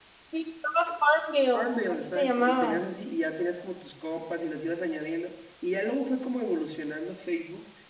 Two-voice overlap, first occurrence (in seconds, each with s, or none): 1.5 s